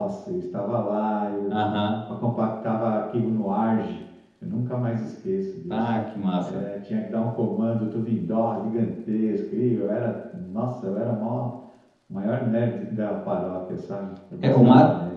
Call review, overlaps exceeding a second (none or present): none